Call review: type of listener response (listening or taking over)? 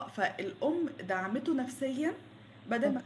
listening